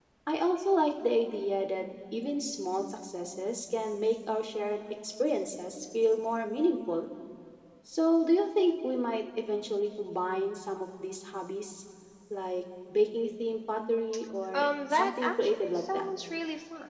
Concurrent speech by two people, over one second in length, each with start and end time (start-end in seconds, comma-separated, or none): 14.5-16.1